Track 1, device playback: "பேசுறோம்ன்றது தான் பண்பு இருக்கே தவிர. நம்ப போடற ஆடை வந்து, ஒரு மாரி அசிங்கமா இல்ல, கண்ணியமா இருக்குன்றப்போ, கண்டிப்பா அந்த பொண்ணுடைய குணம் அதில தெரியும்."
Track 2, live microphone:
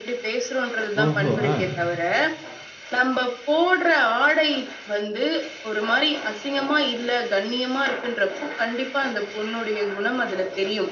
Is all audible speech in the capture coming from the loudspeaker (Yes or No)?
No